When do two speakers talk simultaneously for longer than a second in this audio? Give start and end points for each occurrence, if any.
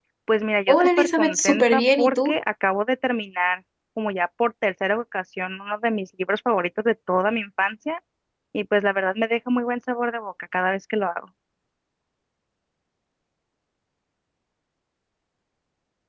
0.7-2.4

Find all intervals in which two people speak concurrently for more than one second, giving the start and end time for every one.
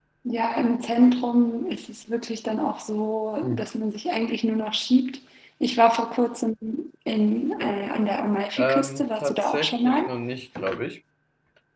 8.6-10.0

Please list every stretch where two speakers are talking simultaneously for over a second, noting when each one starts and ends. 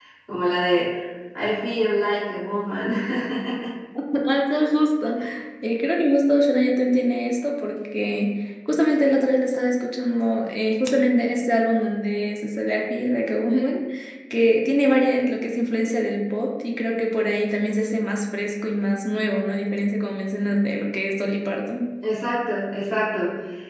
none

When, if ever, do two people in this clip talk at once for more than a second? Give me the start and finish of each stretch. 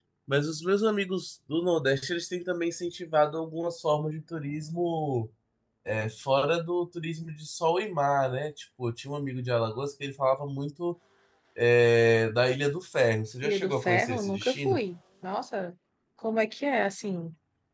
13.4-14.8

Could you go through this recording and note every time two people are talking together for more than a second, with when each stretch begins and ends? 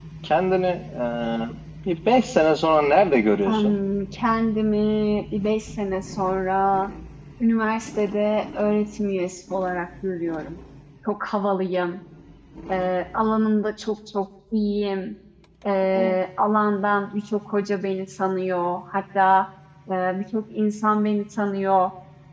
none

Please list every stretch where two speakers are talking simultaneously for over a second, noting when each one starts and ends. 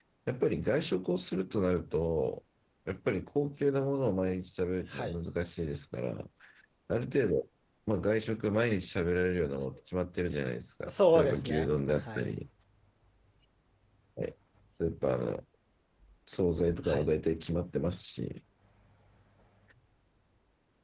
10.9-12.3

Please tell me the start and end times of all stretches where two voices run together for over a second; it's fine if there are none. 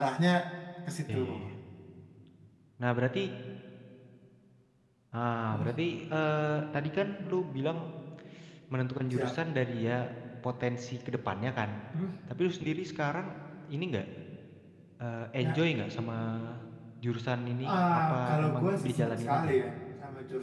17.7-19.5

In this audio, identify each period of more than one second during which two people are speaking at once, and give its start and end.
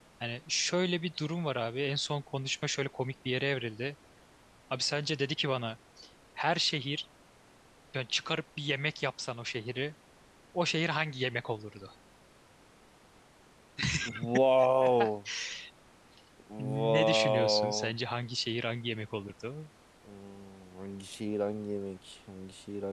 16.6-17.9

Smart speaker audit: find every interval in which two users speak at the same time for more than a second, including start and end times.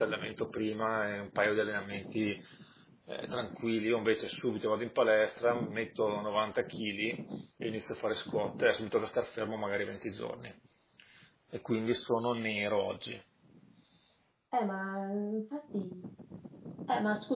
none

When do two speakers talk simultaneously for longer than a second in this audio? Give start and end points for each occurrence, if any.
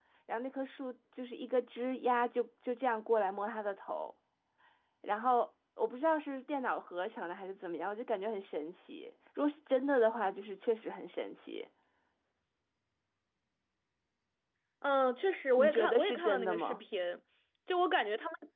15.6-16.8

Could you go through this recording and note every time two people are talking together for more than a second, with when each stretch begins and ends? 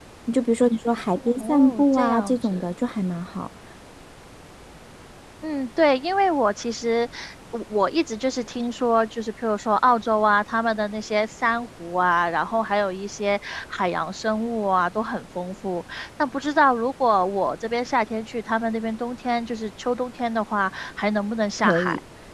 1.4-2.7

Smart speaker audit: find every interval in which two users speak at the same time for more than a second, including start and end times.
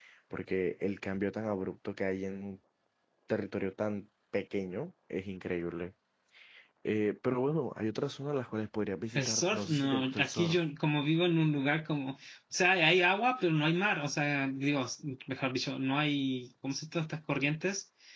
9.2-10.6

